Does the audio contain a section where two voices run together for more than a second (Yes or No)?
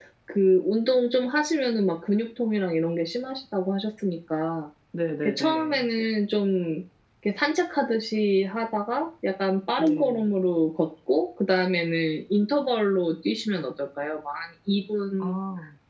No